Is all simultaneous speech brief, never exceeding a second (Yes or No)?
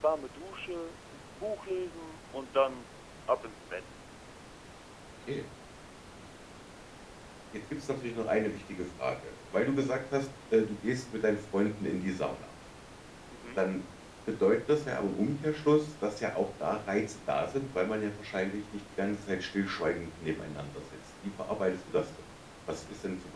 Yes